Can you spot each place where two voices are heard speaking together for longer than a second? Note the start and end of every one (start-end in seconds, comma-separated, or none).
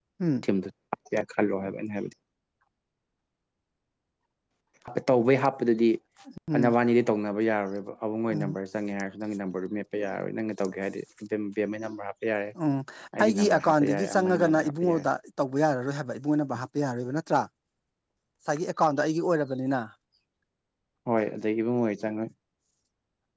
13.2-15.0